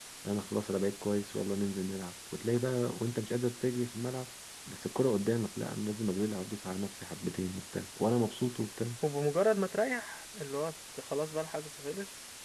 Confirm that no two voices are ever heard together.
Yes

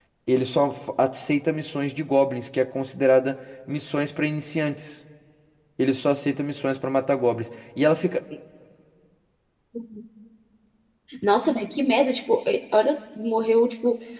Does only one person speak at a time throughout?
Yes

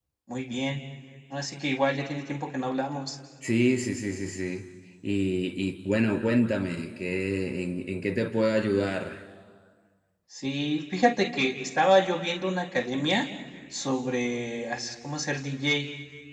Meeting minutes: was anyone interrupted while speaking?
No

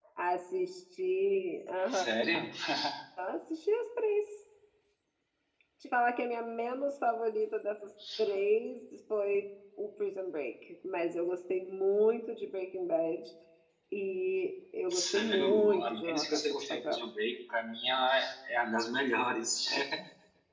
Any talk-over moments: Yes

